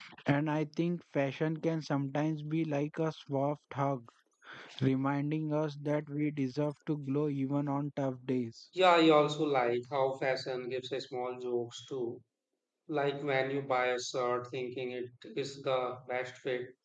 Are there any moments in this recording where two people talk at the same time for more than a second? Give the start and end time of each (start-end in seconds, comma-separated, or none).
none